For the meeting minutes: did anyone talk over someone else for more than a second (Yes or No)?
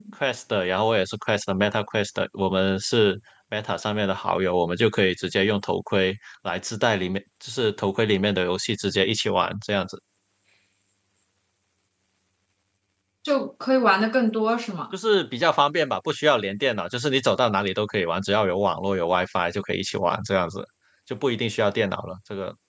No